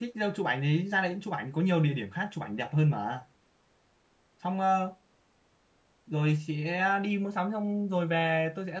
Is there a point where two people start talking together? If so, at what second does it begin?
none

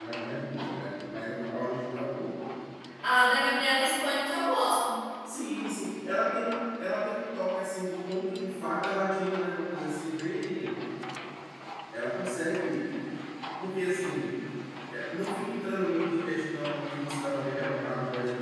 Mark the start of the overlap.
none

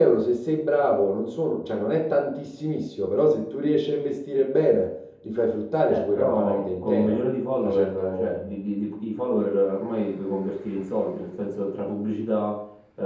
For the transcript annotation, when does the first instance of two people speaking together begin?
6 s

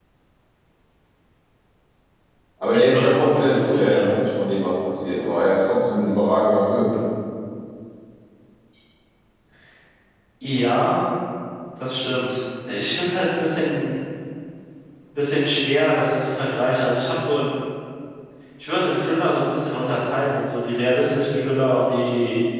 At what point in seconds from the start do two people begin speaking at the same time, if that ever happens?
3 s

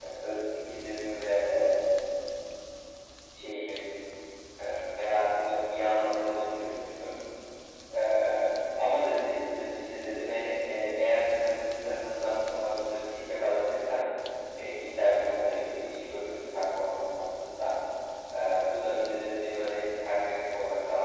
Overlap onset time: none

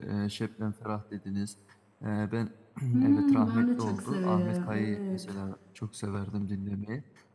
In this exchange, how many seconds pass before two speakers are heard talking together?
3 s

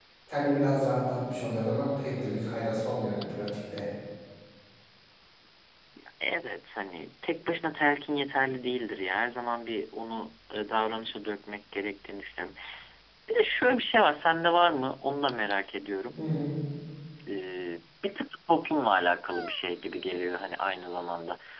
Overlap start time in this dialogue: none

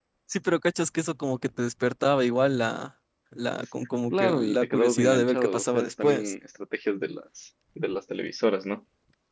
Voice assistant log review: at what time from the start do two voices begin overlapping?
4 s

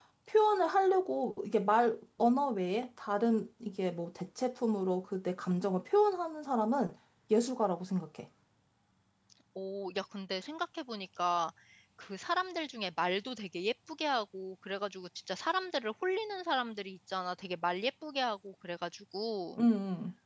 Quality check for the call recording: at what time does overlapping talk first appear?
none

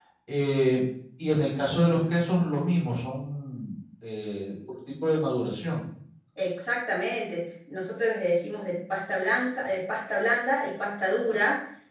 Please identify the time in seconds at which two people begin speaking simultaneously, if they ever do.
none

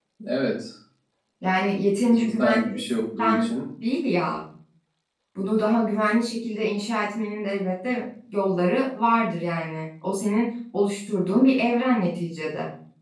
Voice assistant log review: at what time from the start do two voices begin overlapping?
2 s

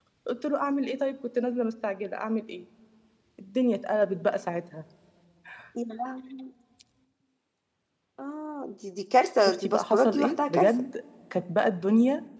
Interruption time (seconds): 9 s

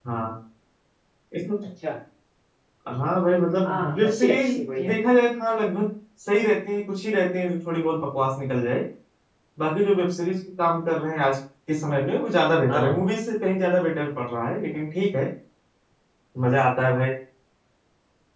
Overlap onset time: 4 s

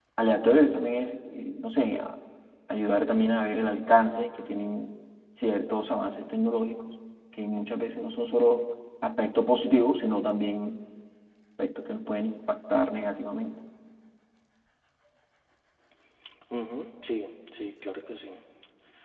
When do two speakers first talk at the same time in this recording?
none

